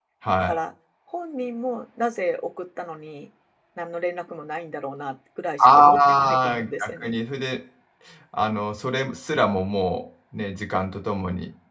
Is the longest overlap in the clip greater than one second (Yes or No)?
Yes